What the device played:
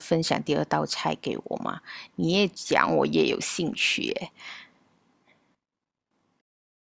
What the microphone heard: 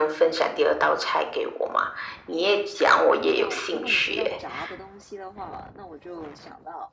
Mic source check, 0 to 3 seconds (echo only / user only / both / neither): echo only